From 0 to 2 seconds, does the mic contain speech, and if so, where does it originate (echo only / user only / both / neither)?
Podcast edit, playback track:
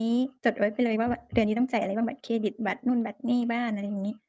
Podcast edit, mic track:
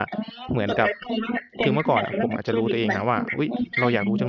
both